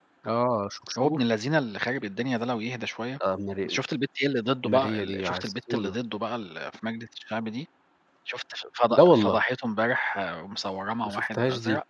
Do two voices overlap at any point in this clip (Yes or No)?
Yes